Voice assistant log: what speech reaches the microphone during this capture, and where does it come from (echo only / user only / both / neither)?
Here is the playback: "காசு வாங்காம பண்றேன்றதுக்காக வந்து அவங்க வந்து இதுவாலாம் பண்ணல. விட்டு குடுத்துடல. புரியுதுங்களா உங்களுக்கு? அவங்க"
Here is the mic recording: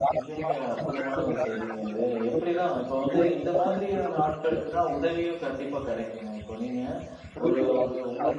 both